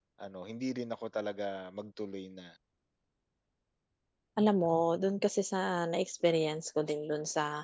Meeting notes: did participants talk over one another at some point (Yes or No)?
No